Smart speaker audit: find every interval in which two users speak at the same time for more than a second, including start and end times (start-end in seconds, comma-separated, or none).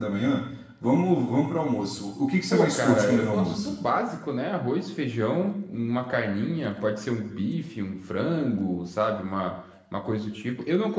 2.5-3.8